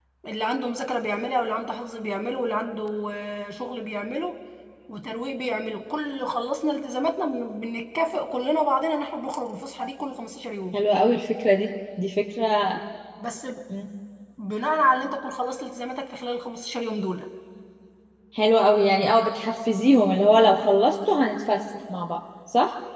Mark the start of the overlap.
none

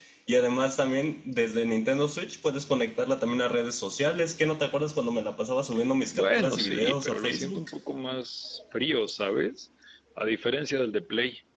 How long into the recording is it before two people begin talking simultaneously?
6.1 s

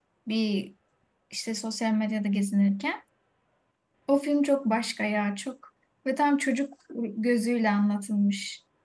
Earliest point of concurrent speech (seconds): none

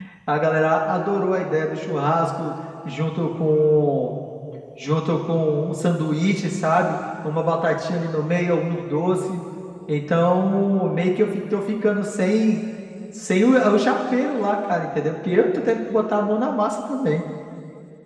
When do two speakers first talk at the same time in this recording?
none

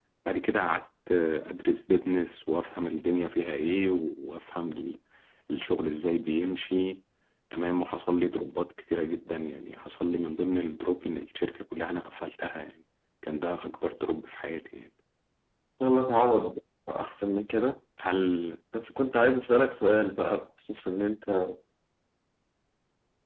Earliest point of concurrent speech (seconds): none

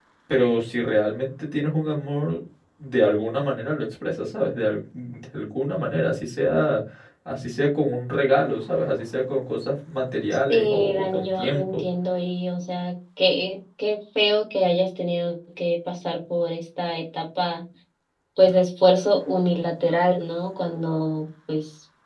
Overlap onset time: 10.5 s

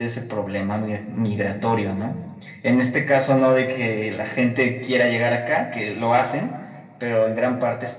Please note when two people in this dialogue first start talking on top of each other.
none

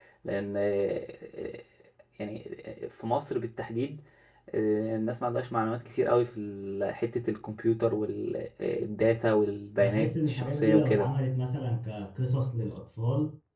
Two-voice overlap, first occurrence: 9.8 s

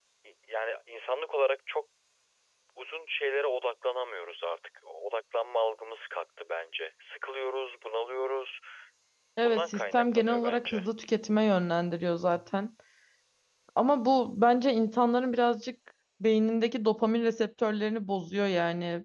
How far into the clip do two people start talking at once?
9.4 s

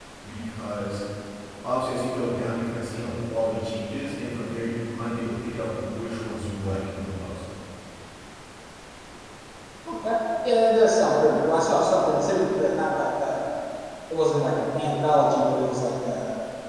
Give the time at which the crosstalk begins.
none

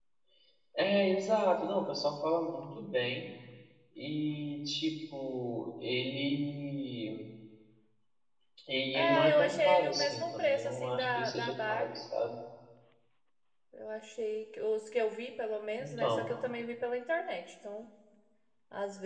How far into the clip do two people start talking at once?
8.9 s

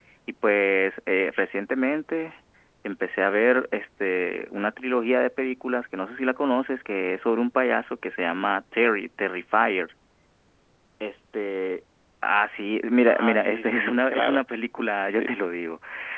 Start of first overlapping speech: 13.1 s

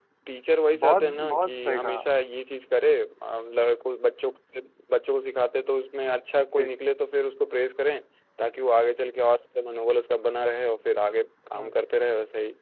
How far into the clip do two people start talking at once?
0.8 s

